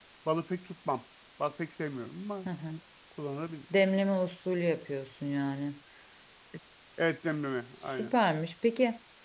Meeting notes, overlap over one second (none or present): none